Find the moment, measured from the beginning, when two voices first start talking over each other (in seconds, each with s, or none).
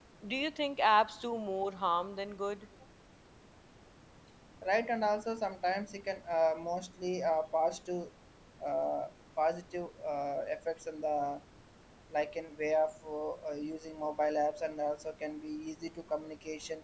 none